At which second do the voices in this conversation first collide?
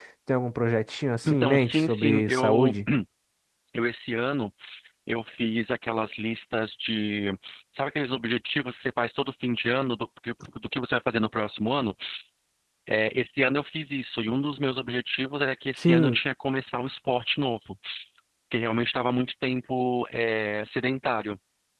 1.3 s

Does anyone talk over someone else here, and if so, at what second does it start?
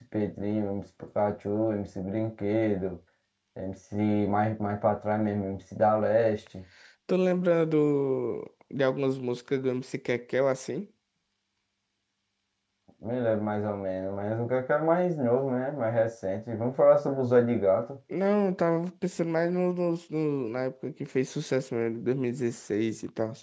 none

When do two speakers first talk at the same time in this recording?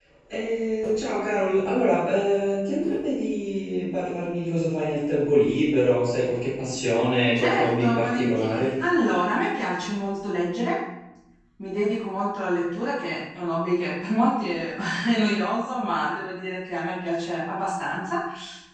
7.3 s

